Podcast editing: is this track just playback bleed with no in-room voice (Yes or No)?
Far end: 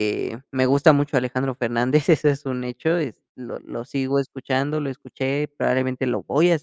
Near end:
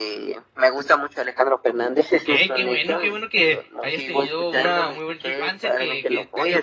No